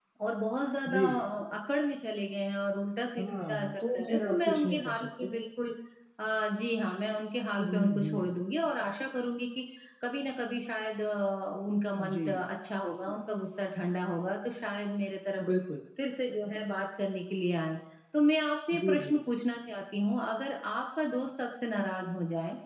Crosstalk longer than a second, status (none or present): present